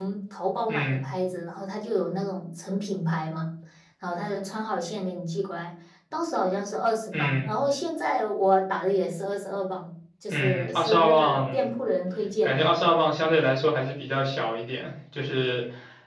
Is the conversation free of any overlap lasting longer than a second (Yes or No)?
No